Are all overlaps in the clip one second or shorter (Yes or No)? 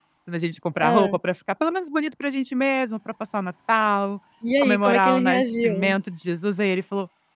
No